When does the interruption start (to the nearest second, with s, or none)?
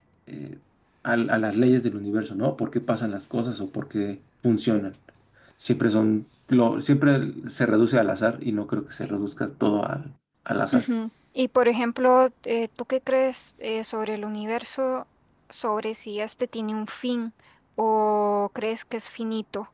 none